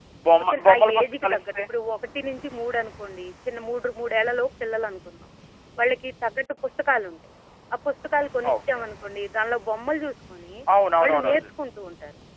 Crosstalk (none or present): present